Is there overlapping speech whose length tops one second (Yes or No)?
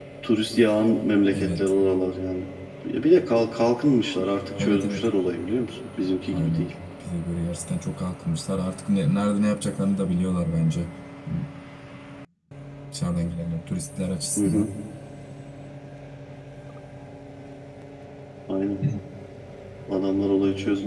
No